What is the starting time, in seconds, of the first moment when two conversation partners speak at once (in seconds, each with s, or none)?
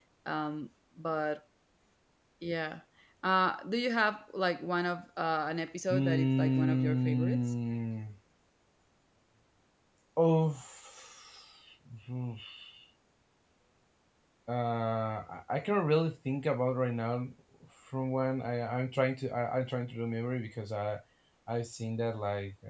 5.9 s